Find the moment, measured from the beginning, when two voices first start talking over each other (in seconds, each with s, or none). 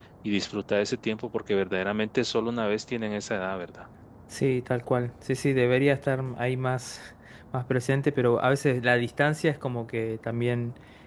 none